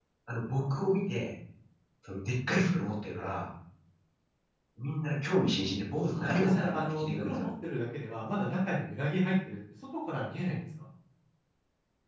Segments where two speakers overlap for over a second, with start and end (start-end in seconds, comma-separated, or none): 6.1-7.5